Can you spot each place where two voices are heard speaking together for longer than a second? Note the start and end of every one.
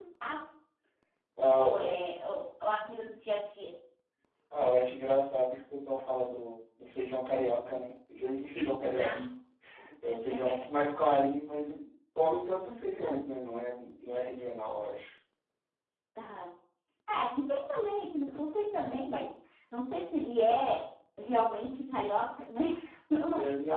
none

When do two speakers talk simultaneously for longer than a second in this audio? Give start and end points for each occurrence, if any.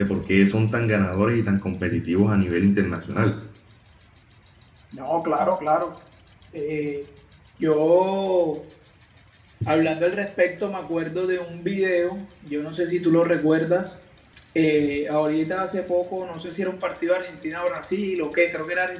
none

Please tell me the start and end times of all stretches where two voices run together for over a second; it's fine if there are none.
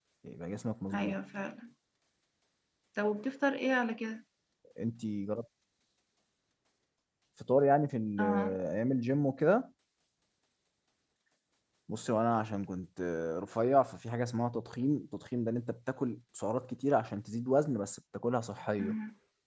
none

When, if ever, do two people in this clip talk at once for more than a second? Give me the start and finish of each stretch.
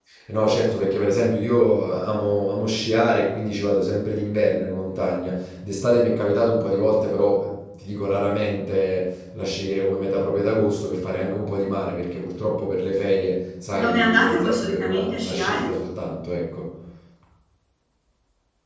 13.7-15.7

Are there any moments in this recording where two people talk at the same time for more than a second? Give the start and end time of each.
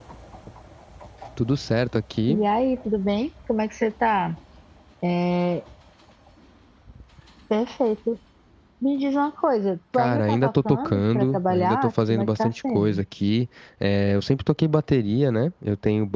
9.9-13.0

